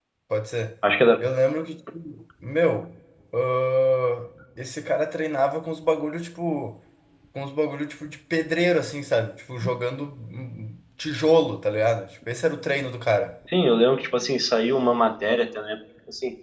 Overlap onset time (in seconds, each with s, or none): none